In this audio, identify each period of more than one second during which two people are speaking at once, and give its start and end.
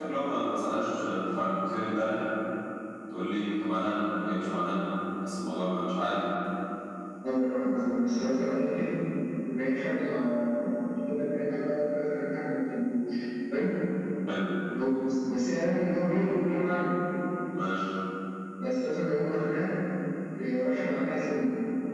none

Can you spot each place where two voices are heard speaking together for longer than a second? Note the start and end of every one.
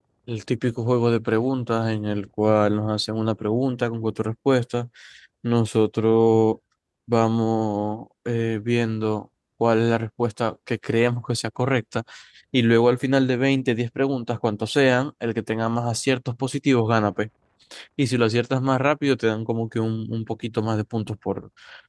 none

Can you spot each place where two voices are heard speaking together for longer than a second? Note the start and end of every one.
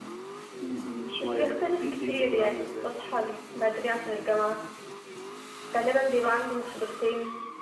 1.2-2.9

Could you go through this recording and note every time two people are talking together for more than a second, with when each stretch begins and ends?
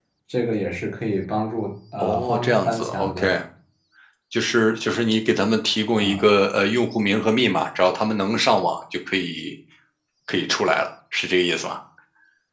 2.0-3.3

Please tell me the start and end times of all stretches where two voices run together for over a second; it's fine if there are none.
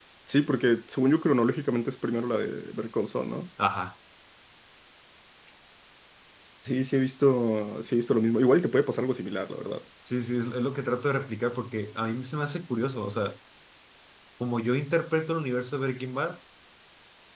none

